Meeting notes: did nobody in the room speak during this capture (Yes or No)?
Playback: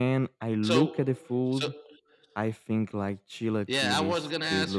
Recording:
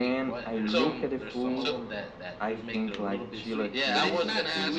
No